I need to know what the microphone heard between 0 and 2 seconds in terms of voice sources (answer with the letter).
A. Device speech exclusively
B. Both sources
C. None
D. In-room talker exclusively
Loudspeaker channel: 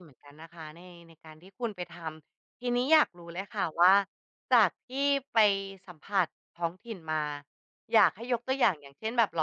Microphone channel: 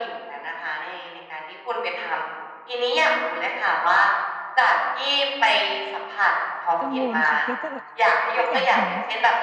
A